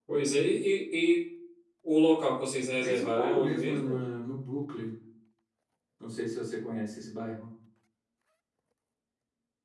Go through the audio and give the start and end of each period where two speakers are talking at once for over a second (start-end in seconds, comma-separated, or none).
2.8-4.0